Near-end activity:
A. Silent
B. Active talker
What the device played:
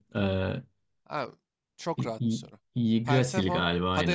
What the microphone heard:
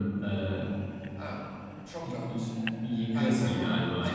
A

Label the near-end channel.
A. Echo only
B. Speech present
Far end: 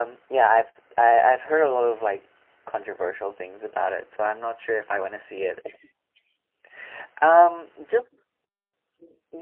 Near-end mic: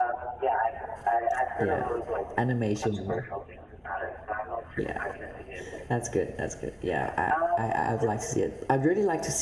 B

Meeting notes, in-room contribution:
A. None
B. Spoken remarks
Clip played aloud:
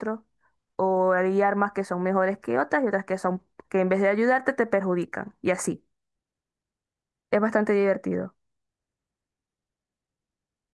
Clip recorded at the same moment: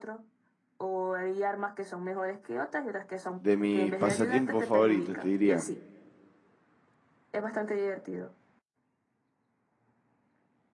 B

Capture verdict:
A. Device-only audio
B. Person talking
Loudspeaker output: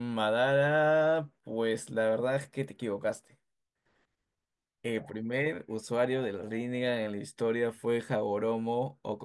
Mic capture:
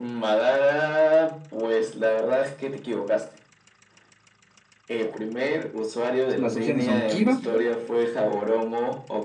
B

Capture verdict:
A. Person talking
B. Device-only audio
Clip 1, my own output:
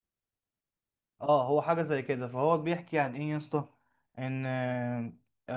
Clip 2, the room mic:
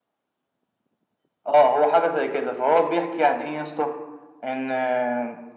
B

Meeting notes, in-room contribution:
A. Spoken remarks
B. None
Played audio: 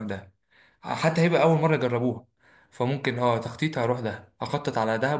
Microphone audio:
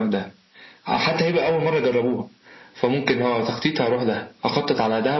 B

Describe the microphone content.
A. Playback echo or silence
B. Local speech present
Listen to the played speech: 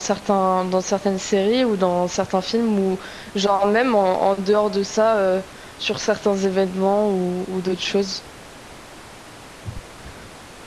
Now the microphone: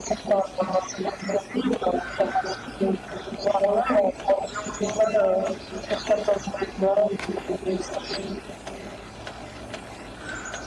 A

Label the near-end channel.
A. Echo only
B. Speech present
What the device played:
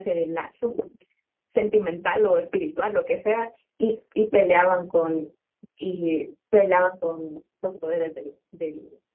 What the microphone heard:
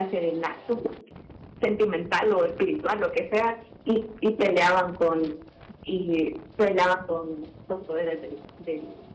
A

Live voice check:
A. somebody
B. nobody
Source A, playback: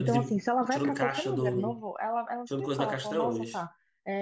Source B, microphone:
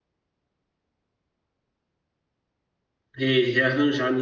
A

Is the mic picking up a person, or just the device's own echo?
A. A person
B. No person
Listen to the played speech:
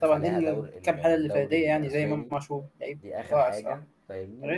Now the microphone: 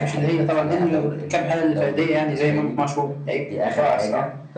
B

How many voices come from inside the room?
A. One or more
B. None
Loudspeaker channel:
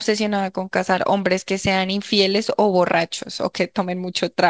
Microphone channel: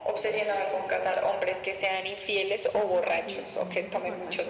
A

